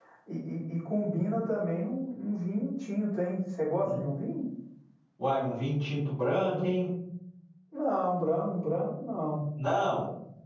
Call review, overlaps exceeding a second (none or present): none